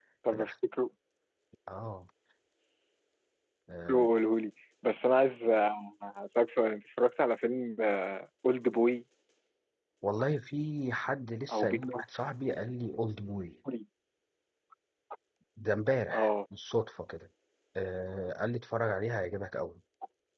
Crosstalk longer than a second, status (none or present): none